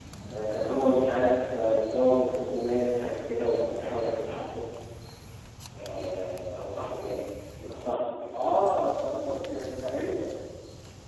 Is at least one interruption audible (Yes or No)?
No